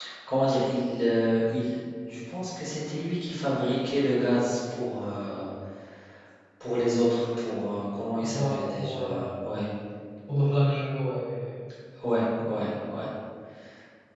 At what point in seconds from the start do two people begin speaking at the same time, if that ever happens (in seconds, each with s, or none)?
8.3 s